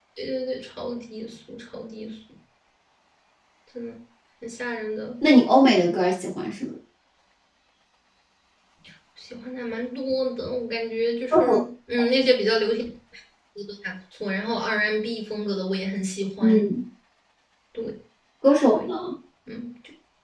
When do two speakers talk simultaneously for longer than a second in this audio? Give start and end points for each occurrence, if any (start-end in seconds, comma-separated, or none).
none